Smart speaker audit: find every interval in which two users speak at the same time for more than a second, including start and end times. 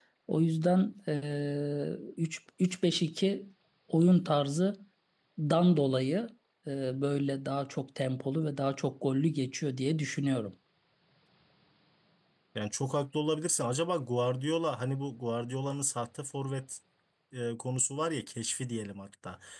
none

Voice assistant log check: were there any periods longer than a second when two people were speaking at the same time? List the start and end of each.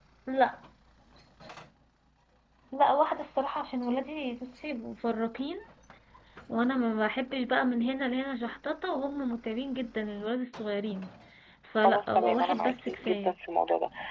11.8-13.3

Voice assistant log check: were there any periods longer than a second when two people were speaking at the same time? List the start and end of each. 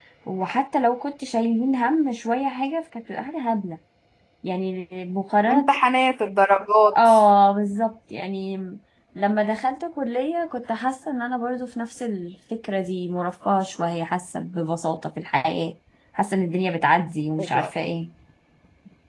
none

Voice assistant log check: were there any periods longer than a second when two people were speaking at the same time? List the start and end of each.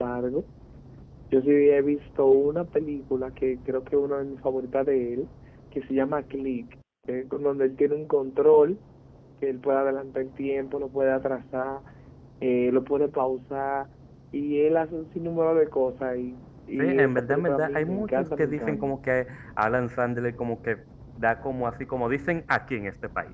16.8-18.9

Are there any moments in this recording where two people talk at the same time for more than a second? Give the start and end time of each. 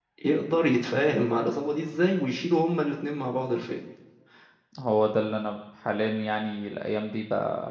none

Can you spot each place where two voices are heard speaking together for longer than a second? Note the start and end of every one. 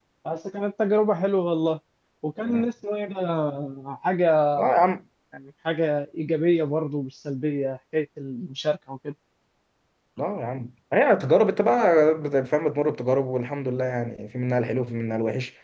none

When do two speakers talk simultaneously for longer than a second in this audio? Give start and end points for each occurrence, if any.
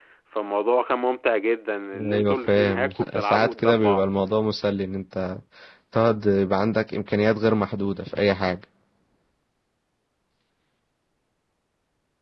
2.1-4.0

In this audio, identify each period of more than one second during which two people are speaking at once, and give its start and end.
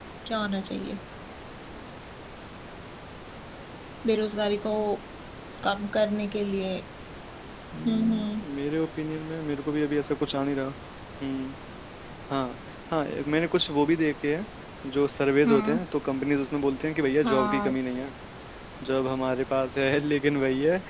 none

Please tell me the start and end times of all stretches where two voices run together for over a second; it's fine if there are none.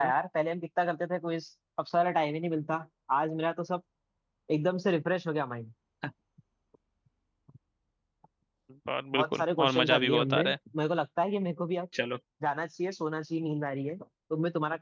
9.1-10.5

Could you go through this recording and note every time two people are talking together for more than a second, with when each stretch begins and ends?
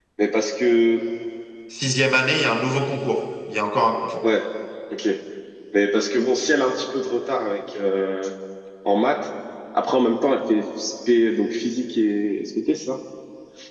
none

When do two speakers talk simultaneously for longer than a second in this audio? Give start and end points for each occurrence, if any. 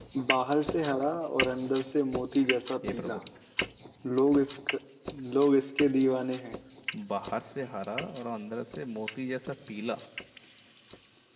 none

